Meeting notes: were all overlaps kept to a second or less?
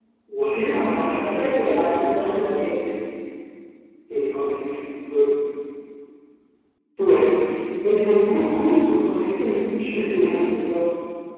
No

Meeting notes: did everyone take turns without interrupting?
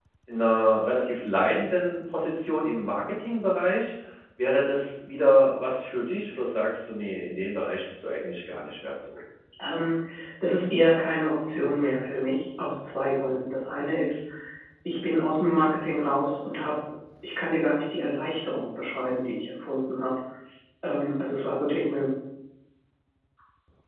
Yes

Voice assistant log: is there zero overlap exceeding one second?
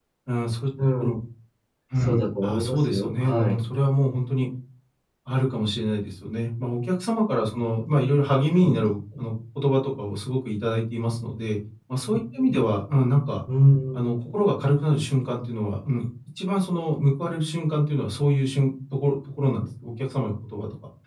No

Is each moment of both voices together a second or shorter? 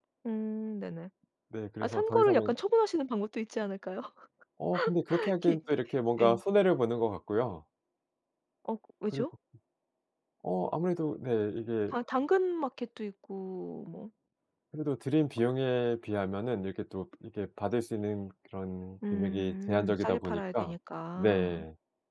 No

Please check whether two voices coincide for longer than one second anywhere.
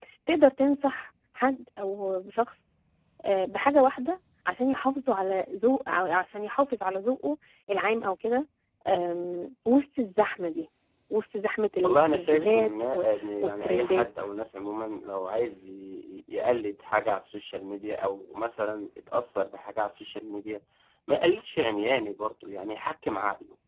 Yes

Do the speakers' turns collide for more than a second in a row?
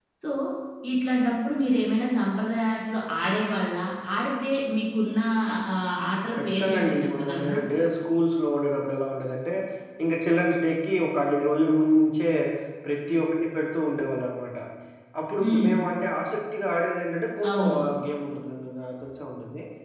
Yes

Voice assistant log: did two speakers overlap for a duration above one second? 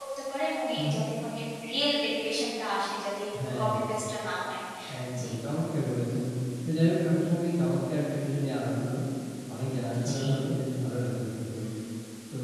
No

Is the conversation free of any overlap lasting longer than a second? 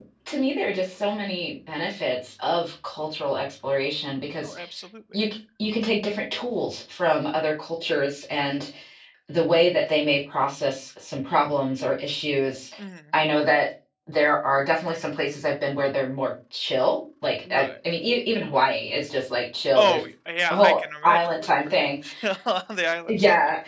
No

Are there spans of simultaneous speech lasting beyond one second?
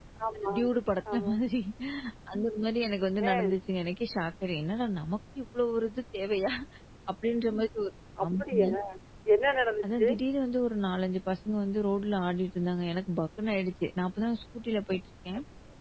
No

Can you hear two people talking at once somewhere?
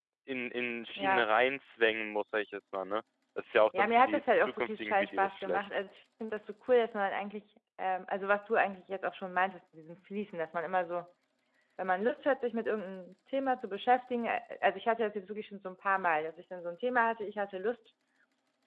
Yes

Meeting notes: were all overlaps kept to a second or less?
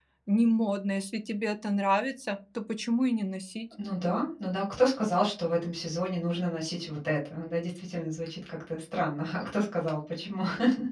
Yes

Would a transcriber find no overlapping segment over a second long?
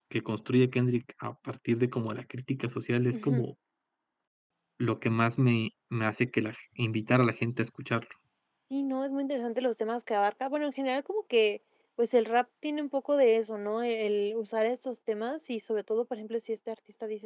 Yes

